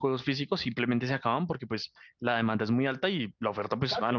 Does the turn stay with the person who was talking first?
Yes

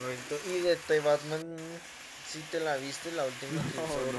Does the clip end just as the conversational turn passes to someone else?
Yes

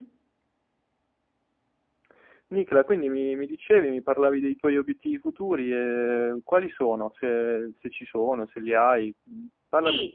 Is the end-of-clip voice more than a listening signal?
Yes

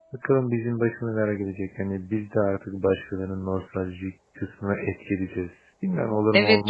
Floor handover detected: Yes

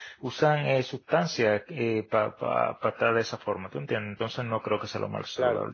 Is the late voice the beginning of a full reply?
No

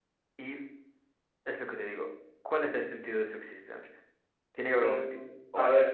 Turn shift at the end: Yes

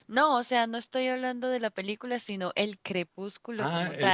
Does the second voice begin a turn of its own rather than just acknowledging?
Yes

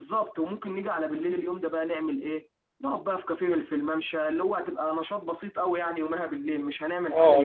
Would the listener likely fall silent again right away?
No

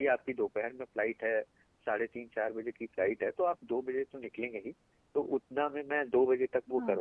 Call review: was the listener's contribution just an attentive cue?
Yes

